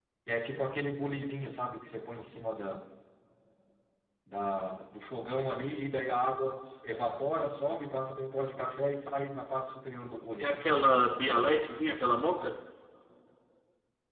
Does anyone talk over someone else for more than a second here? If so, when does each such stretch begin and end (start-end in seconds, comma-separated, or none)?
none